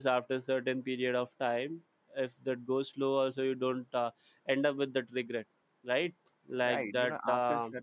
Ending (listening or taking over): taking over